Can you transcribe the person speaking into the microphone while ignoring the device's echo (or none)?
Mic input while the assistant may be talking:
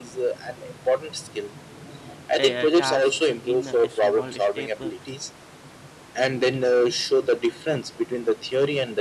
ta- tasks in a small step uh,